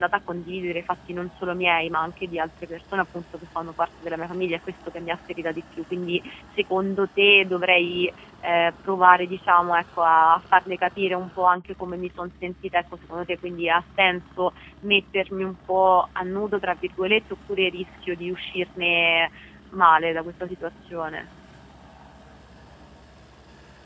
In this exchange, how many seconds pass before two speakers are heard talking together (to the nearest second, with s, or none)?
none